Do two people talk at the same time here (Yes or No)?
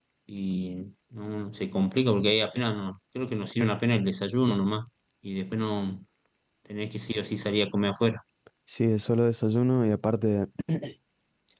No